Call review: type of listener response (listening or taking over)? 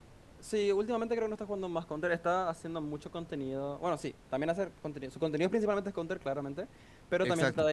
listening